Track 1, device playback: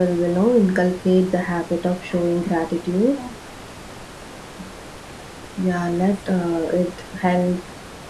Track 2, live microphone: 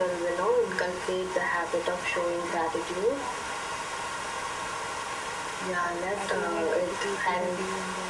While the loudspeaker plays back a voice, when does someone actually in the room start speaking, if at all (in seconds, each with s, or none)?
5.8 s